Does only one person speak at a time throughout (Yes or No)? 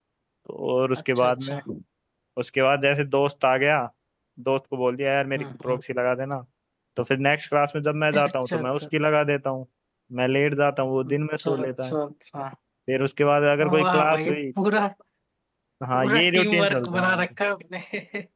No